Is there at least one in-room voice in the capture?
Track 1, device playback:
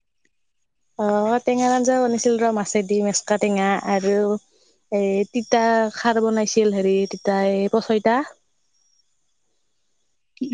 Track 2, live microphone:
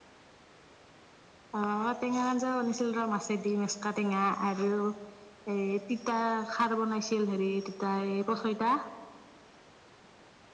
No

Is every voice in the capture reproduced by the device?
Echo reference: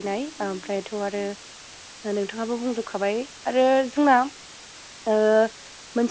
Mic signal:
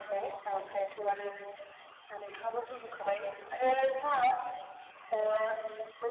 Yes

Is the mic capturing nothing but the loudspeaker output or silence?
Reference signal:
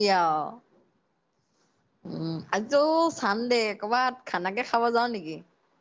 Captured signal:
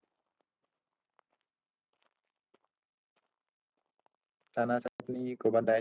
No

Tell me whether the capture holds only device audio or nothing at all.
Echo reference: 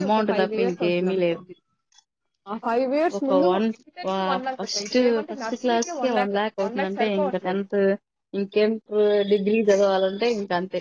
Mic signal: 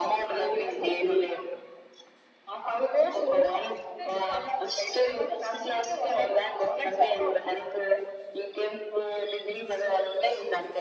Yes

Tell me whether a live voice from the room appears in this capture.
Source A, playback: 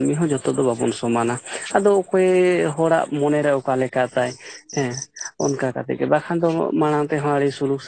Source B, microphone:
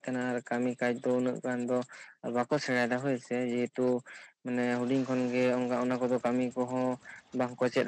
Yes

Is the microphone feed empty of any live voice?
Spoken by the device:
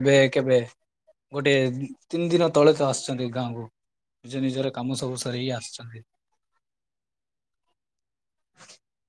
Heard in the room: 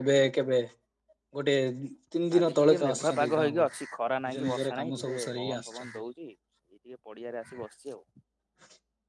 No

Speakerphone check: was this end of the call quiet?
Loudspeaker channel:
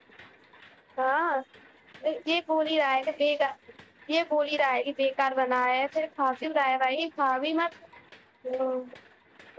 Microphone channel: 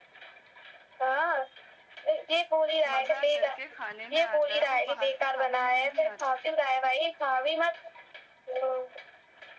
No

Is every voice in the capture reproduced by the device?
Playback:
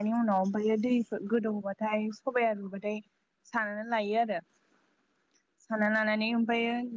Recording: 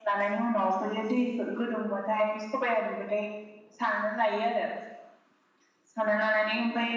Yes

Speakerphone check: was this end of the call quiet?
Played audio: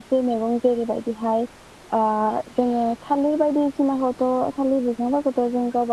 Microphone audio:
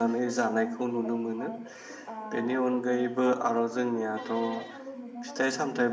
No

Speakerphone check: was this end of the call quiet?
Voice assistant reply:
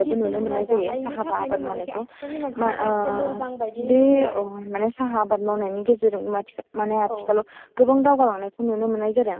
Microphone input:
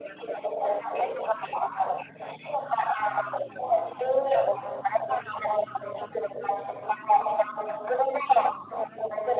Yes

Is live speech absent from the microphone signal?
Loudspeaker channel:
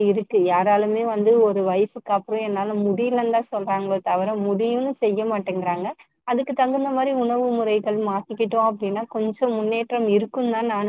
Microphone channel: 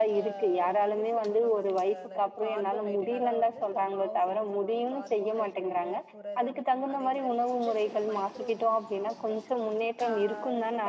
No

